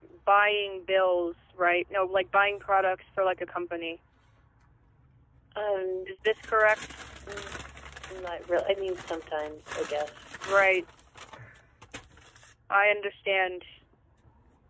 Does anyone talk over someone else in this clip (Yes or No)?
No